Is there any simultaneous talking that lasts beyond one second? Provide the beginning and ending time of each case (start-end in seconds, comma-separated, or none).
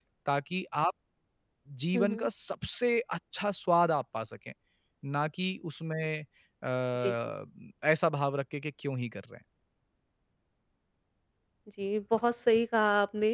none